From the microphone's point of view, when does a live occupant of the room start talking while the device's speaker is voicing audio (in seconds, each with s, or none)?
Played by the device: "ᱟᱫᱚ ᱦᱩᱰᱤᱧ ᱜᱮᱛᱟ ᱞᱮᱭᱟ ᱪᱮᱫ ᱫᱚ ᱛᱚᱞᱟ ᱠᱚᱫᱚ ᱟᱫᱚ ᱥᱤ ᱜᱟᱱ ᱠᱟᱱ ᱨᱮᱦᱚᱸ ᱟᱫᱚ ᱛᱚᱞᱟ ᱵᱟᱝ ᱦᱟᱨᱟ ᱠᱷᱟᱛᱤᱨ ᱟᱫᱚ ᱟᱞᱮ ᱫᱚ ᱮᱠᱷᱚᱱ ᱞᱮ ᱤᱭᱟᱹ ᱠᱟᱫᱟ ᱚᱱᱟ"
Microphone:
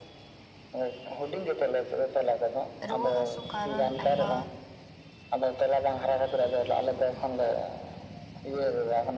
2.9 s